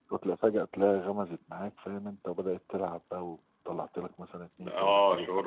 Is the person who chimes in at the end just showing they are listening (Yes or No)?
No